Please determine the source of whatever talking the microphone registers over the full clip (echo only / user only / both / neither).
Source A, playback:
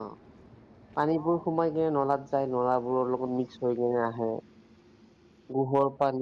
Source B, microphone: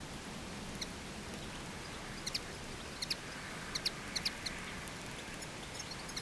neither